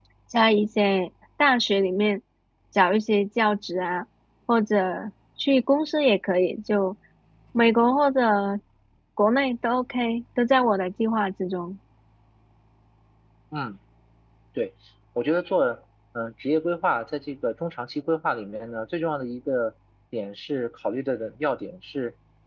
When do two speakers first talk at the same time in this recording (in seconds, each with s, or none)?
none